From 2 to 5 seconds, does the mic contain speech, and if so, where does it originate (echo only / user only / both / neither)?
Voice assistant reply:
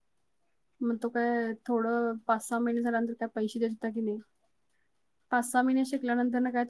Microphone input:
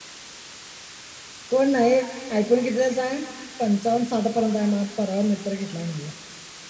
user only